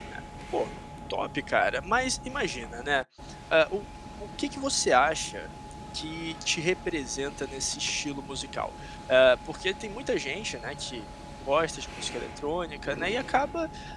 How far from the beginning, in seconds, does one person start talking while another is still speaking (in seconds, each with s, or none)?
none